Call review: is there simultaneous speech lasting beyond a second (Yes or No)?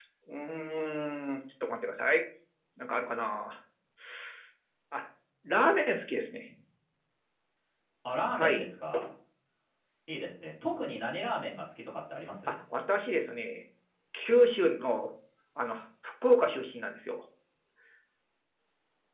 No